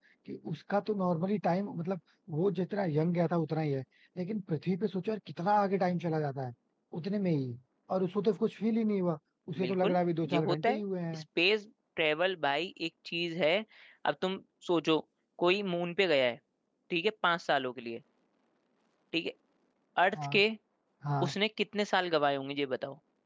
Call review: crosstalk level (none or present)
present